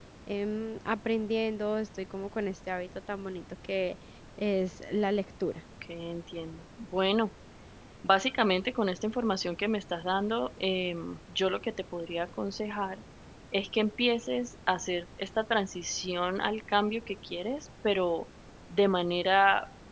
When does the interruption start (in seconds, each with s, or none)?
none